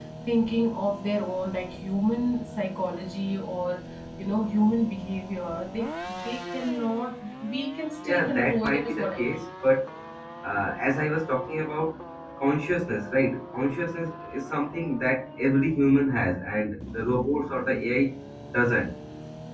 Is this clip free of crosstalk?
No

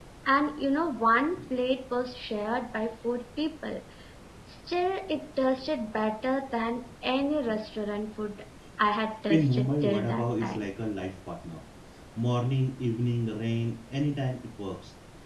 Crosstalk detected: Yes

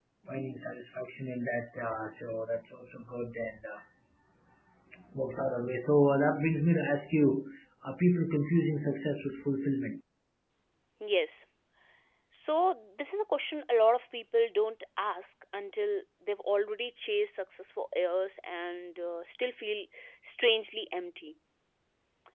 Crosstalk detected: No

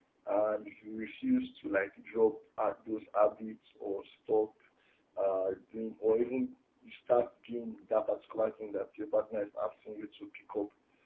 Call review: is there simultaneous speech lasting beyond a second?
No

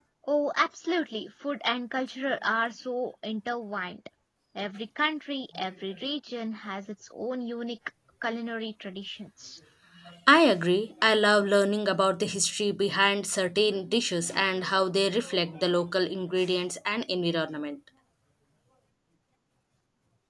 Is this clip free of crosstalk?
Yes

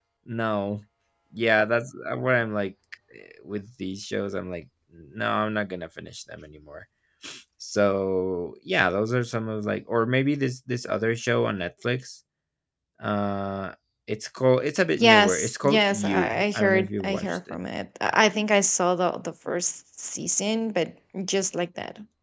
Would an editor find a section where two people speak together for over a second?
Yes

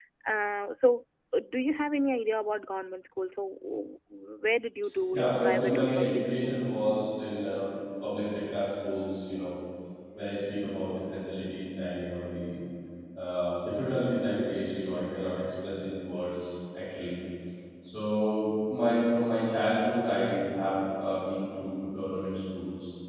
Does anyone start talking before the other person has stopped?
Yes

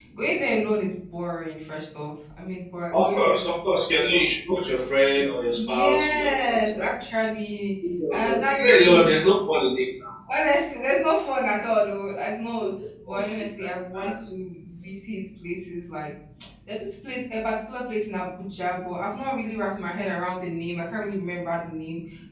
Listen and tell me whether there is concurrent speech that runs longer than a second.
Yes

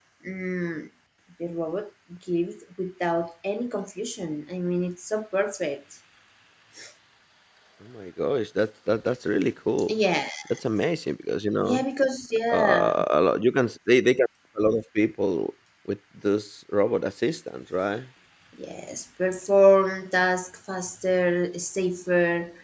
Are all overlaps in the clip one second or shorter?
Yes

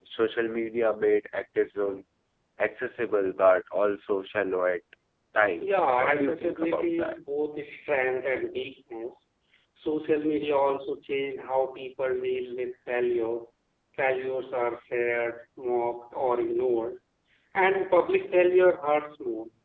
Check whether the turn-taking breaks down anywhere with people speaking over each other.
Yes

